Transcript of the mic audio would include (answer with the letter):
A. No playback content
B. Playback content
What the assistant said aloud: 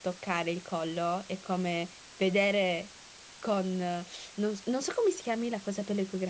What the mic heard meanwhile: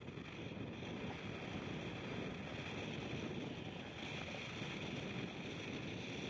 A